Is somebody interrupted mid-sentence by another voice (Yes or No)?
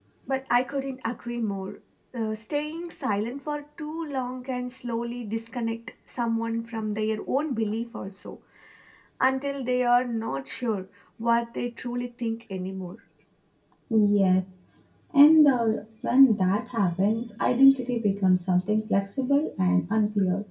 No